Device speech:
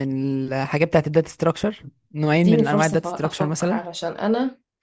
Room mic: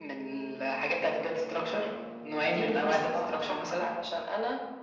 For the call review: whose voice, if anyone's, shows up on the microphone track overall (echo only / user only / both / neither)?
echo only